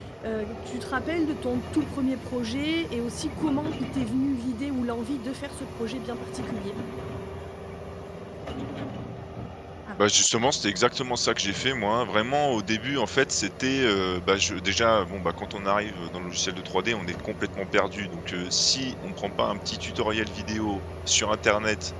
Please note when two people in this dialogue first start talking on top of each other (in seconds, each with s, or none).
none